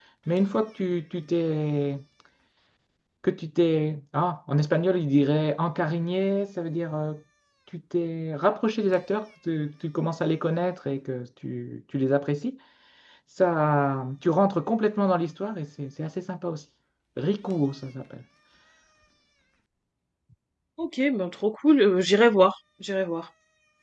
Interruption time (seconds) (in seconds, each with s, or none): none